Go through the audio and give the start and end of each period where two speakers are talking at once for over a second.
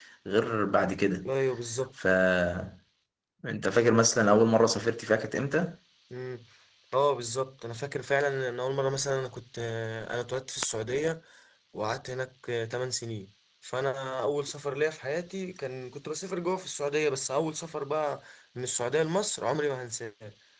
none

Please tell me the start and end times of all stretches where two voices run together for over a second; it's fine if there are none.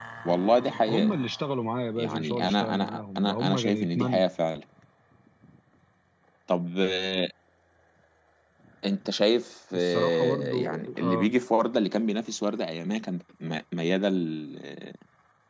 2.0-4.2, 9.7-11.3

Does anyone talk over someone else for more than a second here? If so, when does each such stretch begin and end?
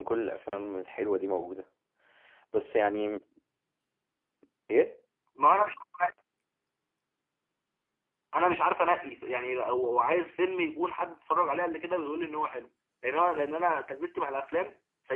none

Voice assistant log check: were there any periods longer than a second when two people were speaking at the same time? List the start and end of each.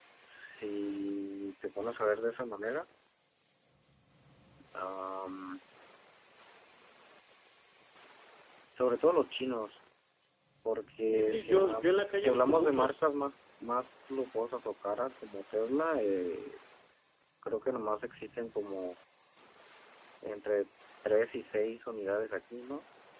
11.1-13.0

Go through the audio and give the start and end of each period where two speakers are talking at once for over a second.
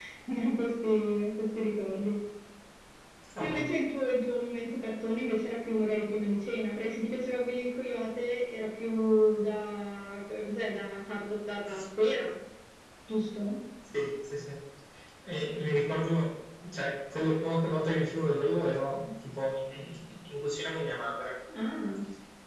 none

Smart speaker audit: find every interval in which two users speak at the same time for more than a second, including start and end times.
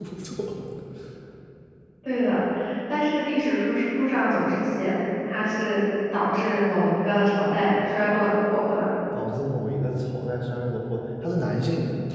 none

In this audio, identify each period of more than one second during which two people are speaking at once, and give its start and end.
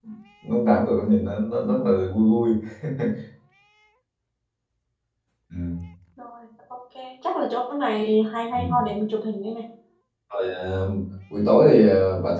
none

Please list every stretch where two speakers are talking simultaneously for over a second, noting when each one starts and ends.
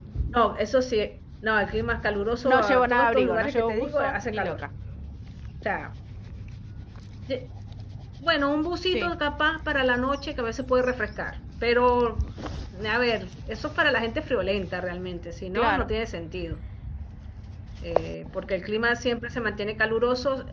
2.4-4.6

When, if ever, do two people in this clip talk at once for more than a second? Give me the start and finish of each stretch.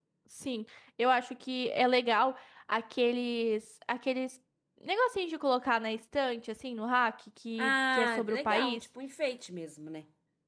7.6-8.8

